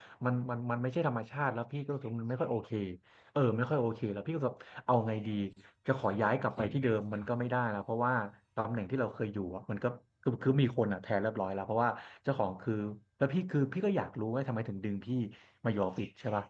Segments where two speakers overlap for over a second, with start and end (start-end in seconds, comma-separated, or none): none